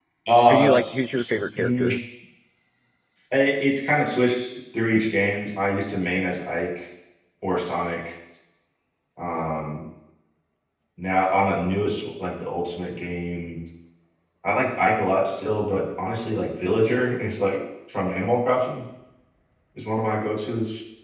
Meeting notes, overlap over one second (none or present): present